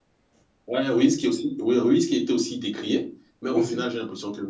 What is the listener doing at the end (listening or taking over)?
listening